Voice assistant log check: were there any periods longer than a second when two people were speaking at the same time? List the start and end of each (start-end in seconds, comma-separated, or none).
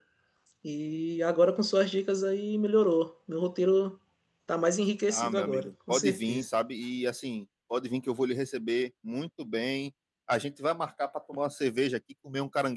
5.1-6.5